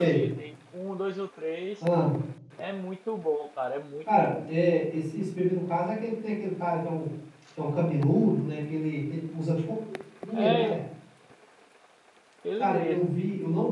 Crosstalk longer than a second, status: none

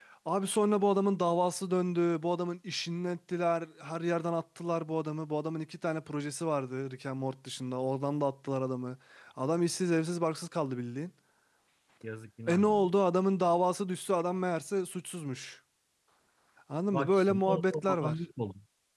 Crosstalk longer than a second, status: present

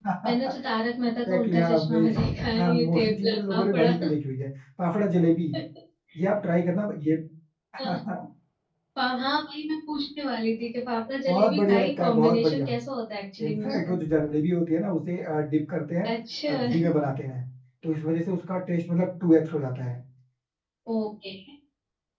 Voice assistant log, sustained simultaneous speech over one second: present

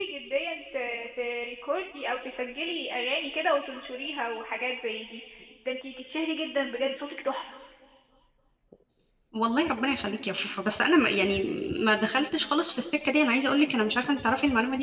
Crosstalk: none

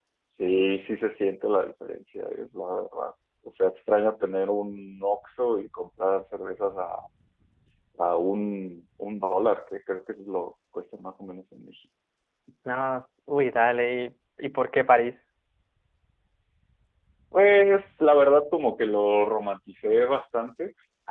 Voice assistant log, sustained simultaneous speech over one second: none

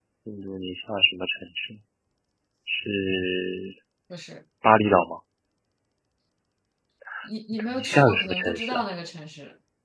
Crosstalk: present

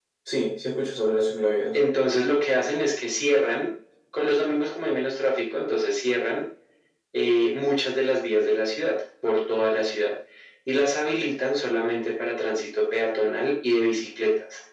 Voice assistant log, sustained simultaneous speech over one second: none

